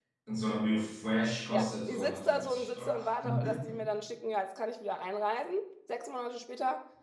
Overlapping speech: Yes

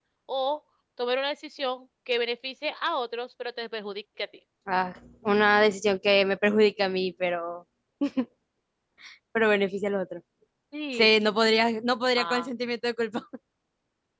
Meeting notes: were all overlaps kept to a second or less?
Yes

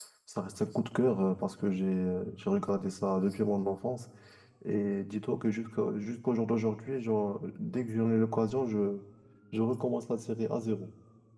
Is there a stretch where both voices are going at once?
No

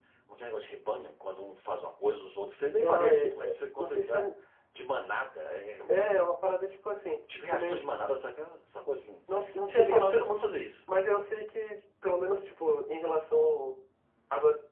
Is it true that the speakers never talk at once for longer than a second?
No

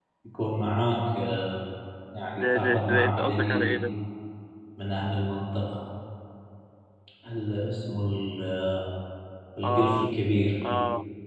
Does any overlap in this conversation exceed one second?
Yes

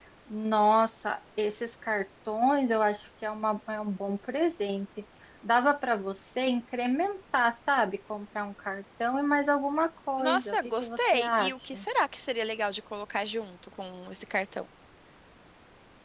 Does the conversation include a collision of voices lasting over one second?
Yes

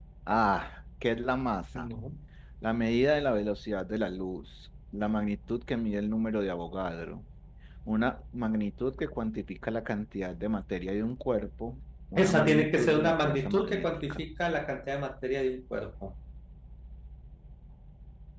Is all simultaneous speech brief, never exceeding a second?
No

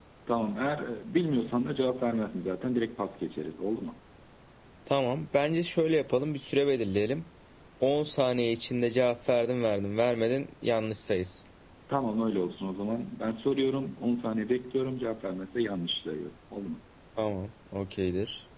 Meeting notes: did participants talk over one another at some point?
No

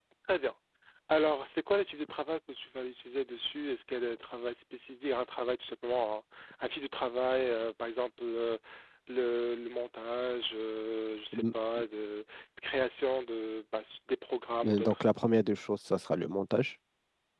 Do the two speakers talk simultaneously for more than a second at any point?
No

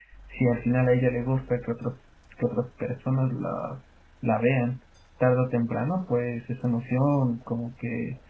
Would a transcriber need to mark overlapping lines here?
No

